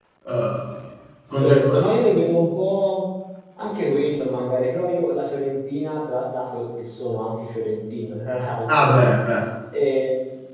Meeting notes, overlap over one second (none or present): none